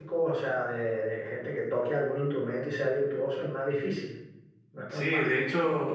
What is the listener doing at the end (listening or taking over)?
taking over